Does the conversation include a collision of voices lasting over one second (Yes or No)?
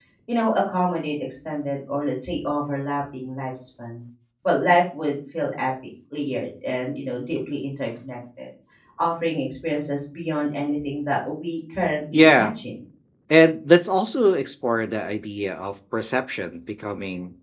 No